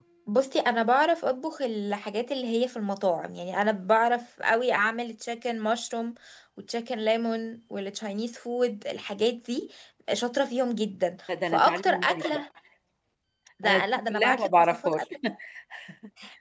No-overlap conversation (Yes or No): No